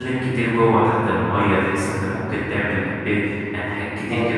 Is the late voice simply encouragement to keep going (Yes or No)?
Yes